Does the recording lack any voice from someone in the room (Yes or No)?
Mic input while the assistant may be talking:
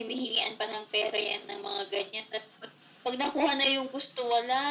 Yes